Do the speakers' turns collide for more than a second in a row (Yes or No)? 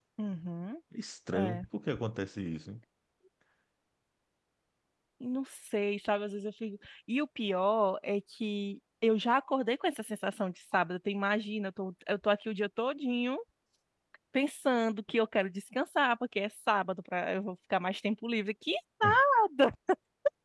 No